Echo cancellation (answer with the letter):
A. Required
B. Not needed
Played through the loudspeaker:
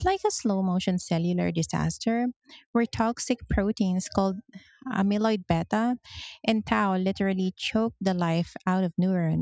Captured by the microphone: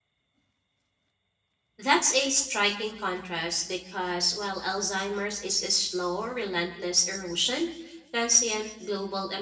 B